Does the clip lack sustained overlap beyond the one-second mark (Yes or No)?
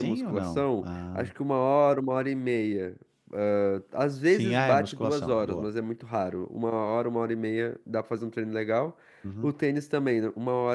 No